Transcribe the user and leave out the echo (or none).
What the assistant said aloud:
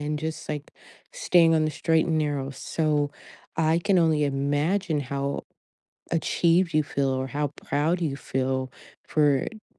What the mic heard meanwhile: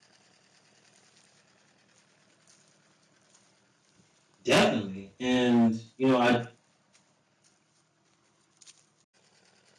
Definitely. And you know, I